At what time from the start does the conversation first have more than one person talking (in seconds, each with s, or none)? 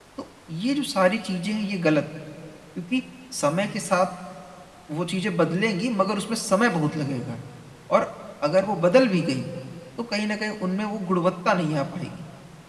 none